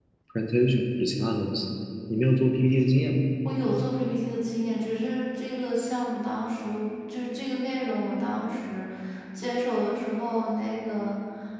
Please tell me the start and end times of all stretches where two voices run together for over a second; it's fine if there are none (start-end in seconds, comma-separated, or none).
none